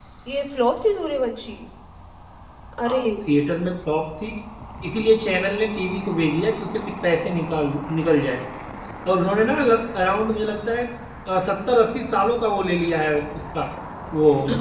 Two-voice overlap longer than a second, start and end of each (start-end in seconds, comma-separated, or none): none